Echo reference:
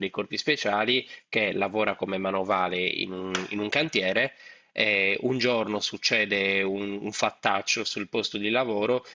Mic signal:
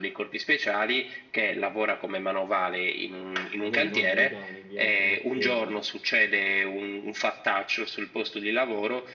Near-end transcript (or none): magari non americani, di altre nazioni?